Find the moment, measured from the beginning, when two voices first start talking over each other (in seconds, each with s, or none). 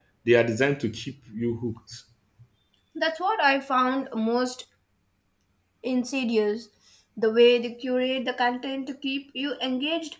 none